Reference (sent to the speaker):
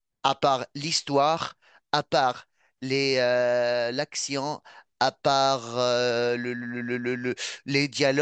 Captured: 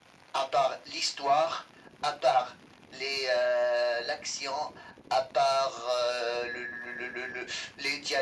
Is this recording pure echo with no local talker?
Yes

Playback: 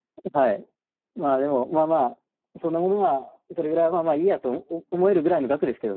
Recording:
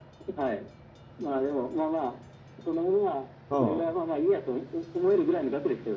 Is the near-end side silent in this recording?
No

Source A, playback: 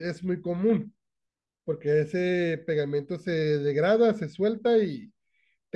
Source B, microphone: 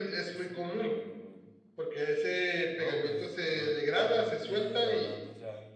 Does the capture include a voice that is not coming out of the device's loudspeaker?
Yes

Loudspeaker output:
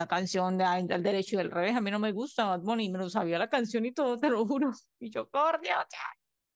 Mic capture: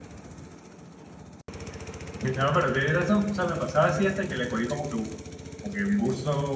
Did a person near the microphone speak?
Yes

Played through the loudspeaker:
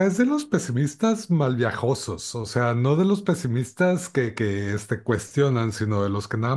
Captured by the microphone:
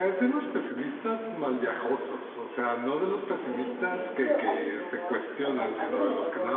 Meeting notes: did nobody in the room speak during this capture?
No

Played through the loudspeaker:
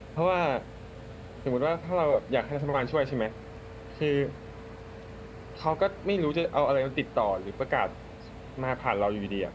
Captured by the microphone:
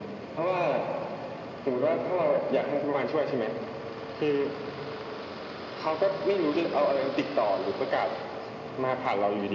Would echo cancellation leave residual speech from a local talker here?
No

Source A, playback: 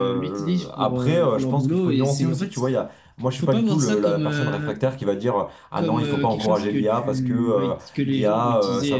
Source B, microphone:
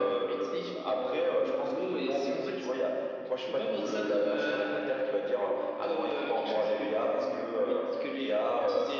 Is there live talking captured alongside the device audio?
No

